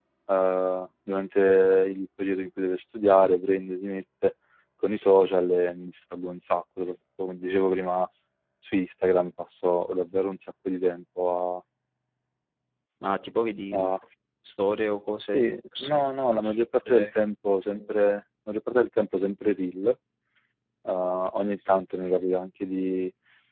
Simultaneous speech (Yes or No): Yes